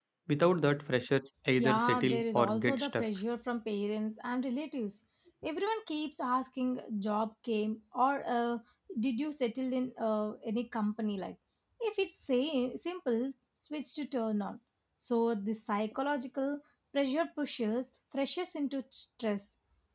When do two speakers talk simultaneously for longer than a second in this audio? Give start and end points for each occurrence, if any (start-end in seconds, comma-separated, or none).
1.6-3.1